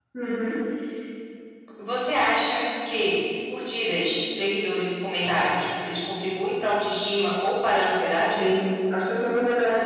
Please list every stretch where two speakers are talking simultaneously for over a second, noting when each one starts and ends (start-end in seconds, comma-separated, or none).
none